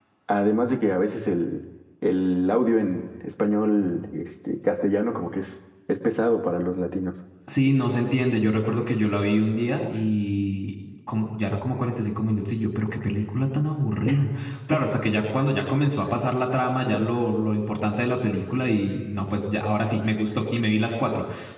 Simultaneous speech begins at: none

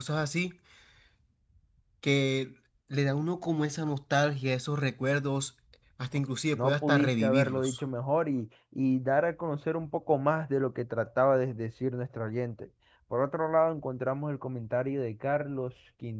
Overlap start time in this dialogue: 6.5 s

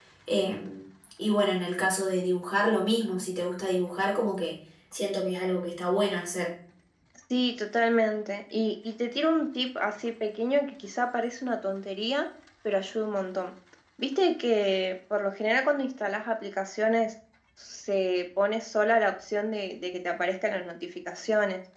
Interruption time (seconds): none

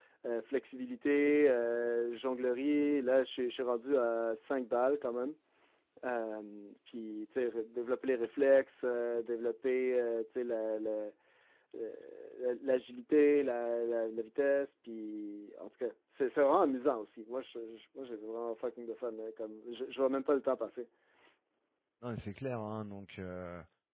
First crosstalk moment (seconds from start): none

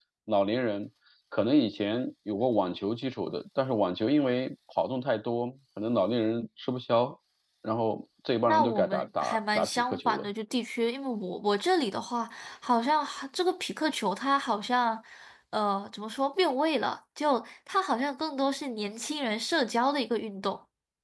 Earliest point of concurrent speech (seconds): 8.5 s

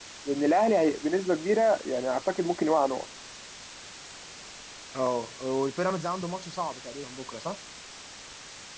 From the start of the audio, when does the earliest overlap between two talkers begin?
none

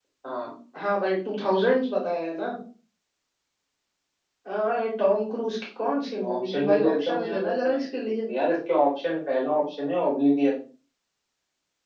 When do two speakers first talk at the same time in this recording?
6.2 s

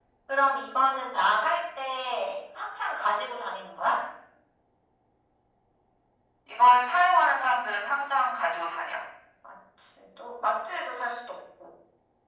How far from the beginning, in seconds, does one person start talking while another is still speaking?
none

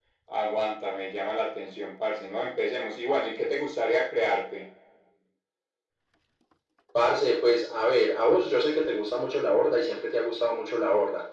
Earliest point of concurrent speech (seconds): none

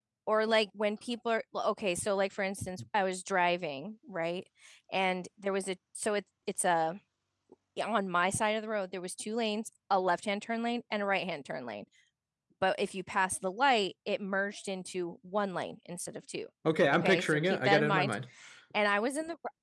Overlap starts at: 16.9 s

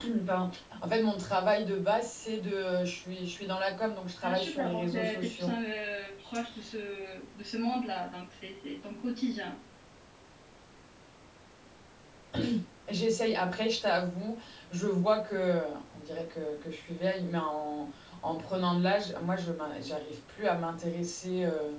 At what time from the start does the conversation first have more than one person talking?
4.2 s

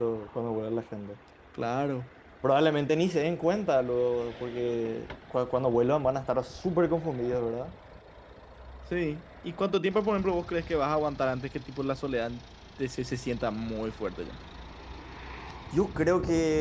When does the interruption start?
none

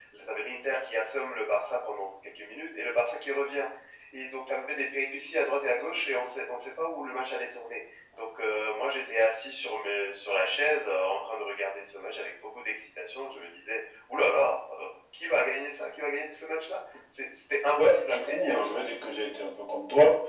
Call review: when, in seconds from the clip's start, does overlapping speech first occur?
17.8 s

